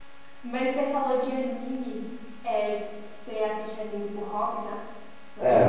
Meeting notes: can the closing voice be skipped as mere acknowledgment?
No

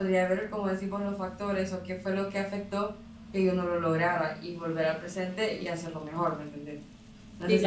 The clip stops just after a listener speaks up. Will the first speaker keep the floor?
No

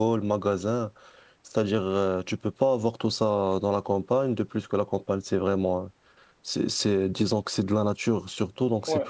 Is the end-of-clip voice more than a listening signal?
Yes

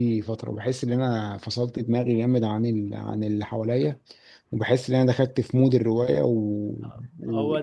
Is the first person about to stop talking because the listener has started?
No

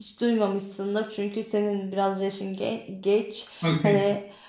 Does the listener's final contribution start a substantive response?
No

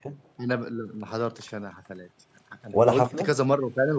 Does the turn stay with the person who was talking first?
Yes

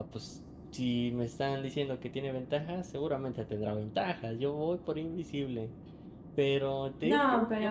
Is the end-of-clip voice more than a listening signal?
No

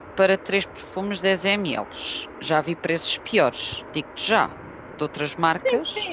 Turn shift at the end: Yes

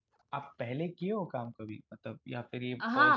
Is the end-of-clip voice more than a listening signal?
Yes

